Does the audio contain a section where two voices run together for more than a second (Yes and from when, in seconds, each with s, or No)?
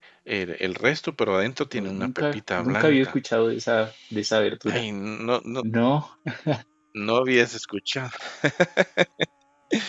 Yes, from 1.7 s